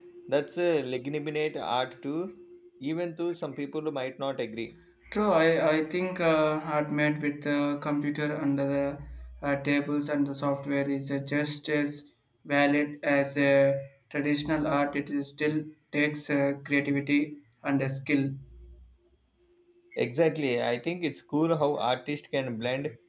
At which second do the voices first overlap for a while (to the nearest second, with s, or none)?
none